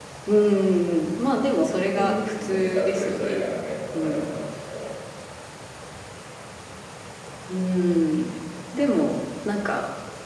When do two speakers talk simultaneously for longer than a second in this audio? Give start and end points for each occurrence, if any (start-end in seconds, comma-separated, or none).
1.9-3.4